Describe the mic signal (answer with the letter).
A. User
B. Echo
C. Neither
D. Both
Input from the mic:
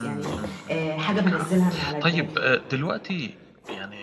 D